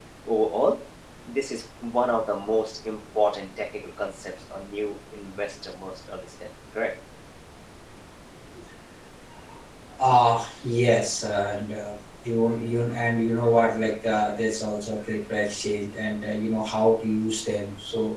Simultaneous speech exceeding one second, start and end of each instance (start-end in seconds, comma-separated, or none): none